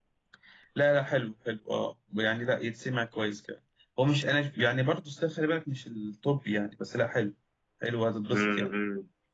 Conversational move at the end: taking over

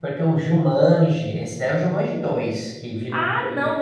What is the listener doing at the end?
taking over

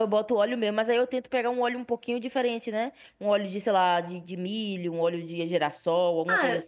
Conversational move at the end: taking over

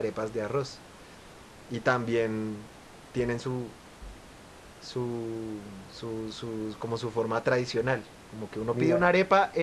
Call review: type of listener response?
listening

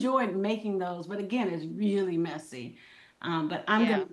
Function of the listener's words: listening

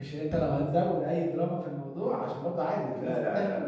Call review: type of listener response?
taking over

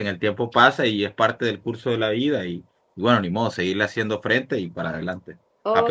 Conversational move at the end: taking over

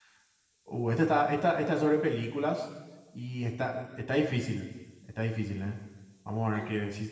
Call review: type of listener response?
listening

